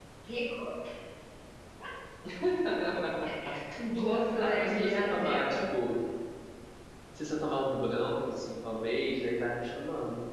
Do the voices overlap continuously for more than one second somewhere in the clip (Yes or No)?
Yes